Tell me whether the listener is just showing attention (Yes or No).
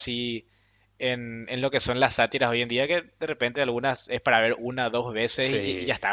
Yes